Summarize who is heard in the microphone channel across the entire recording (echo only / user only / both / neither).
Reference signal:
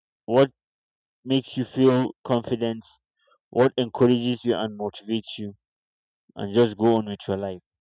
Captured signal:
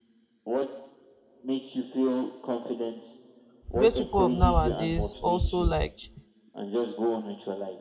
both